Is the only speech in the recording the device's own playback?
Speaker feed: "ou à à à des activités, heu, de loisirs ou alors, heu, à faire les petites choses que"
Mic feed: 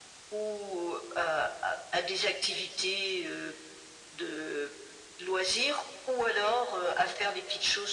Yes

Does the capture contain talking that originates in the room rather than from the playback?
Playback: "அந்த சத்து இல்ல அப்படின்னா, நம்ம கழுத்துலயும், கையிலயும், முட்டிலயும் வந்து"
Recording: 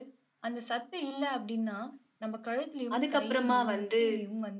Yes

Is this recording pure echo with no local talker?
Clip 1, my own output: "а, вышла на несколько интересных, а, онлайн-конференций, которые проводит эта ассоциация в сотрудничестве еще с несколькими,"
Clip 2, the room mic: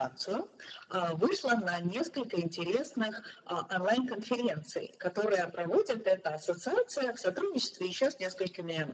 Yes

